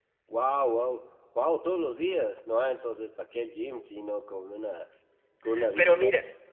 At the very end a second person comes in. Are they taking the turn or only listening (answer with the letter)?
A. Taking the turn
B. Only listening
A